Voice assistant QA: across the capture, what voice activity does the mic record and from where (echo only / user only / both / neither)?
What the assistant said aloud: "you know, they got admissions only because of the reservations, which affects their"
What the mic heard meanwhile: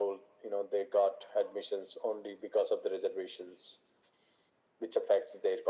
echo only